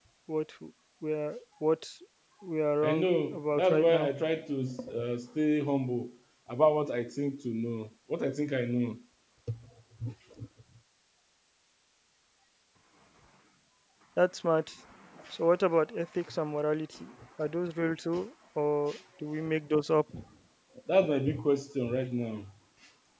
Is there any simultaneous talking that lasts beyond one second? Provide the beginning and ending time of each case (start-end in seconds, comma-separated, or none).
2.8-4.1